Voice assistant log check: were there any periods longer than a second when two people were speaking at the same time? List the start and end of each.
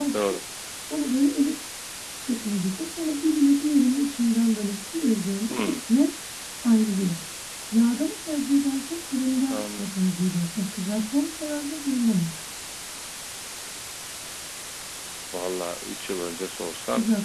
none

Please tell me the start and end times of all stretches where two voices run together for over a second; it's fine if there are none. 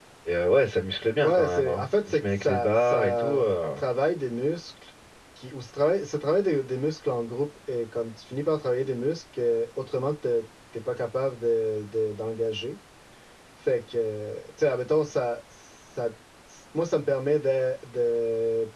1.2-3.5

